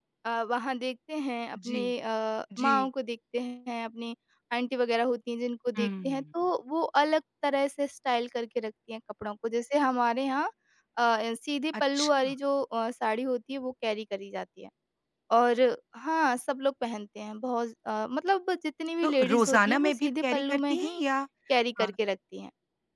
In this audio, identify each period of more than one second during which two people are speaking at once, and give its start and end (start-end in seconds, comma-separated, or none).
19.0-21.0